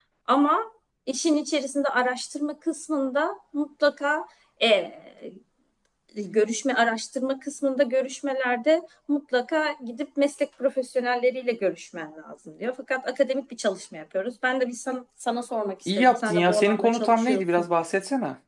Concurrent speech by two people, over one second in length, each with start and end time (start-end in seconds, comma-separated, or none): 16.0-17.6